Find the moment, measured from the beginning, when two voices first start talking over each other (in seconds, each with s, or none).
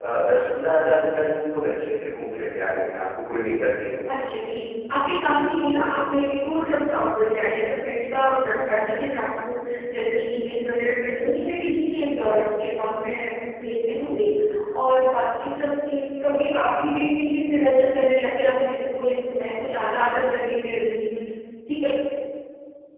none